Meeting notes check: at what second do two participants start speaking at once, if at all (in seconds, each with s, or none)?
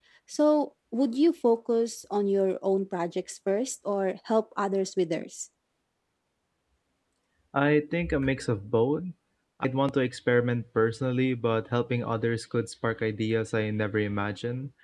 none